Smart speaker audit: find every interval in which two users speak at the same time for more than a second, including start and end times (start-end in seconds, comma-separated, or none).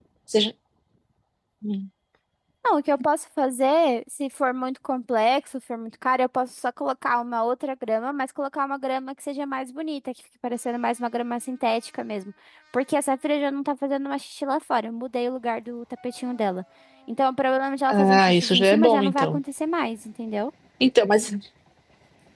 17.9-19.4